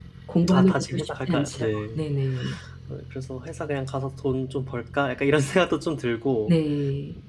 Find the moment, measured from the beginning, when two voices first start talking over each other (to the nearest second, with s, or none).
1 s